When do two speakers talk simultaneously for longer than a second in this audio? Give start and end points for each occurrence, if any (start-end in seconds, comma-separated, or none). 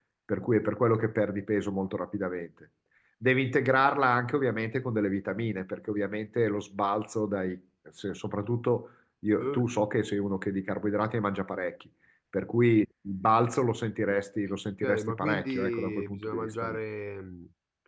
14.8-16.8